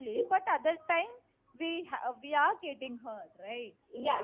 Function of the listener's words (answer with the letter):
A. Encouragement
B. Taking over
B